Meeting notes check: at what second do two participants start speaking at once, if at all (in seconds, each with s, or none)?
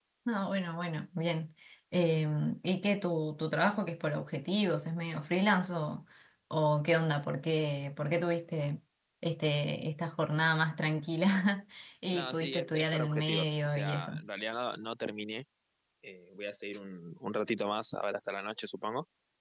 12.1 s